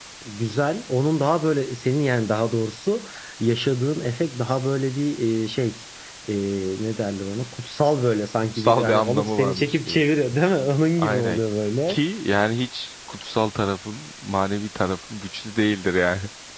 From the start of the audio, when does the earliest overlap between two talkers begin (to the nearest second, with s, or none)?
9 s